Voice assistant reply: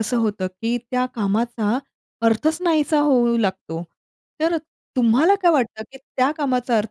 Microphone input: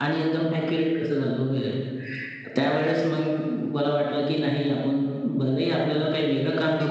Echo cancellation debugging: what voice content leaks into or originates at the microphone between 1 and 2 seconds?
user only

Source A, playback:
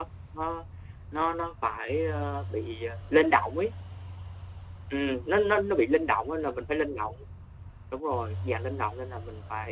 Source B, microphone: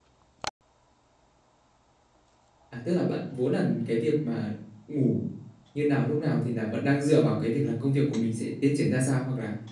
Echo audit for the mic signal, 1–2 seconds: neither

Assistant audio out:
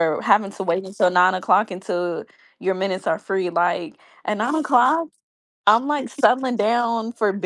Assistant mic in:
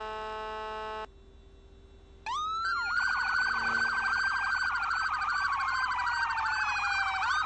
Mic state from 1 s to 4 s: neither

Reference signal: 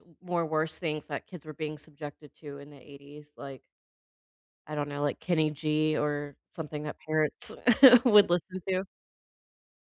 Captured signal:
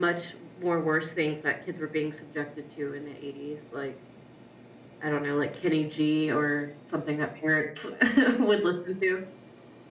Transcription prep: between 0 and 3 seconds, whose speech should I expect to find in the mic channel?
echo only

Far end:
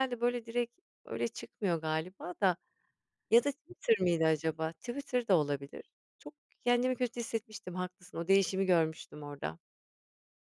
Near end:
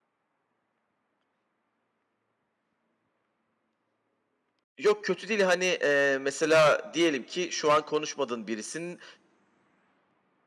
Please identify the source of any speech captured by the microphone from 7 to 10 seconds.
user only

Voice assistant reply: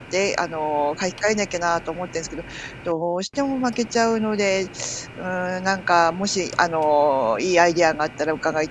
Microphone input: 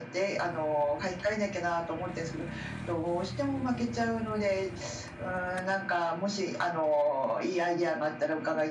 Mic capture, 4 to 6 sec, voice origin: echo only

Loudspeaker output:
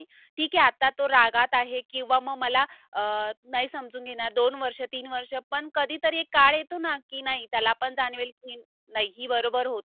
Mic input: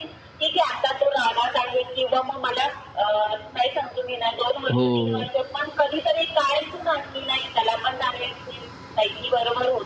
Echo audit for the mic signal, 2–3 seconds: echo only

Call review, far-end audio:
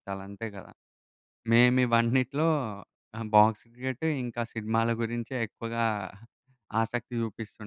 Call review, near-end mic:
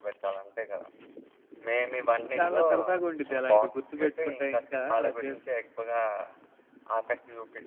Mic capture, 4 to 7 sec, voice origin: both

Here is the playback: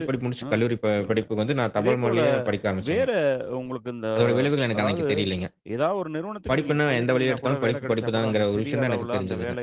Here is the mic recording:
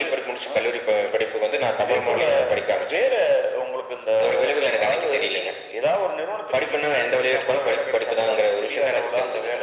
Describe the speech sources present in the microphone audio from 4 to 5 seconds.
echo only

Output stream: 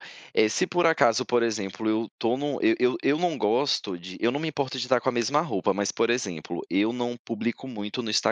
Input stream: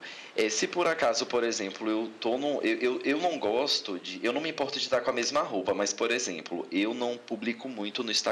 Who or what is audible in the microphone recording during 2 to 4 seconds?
echo only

